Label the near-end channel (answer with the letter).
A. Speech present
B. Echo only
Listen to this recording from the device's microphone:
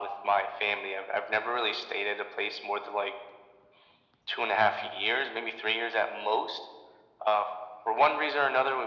B